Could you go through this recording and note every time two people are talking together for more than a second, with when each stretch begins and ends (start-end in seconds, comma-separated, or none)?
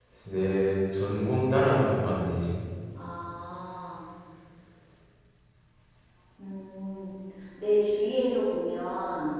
none